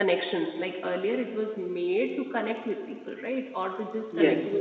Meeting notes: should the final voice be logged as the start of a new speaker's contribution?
No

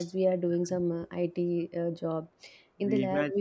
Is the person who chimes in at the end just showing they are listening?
Yes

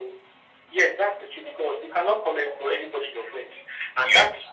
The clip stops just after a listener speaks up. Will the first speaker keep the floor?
Yes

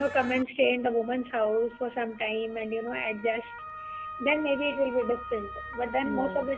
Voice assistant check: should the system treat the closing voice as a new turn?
No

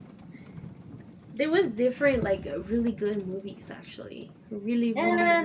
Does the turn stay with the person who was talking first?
No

